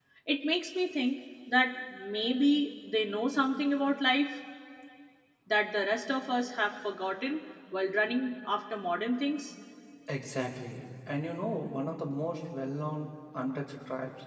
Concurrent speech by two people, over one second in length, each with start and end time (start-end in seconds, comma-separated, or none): none